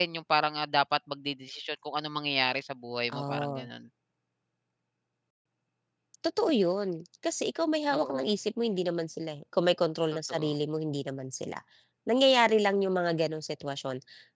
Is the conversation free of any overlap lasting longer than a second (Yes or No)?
Yes